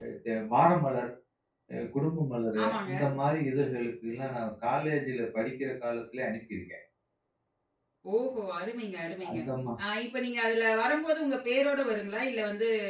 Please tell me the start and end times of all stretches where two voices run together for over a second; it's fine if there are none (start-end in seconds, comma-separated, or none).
none